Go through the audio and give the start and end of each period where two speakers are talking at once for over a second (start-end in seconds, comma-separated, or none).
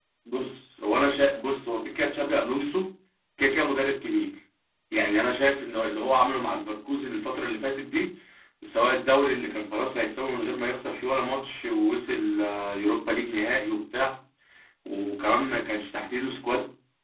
none